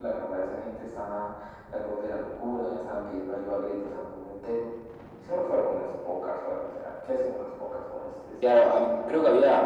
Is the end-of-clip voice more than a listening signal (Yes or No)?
Yes